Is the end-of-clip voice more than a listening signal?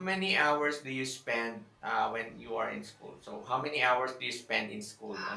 Yes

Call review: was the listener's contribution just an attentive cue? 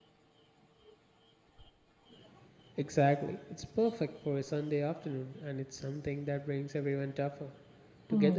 No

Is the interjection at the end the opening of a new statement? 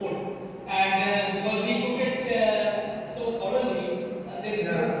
No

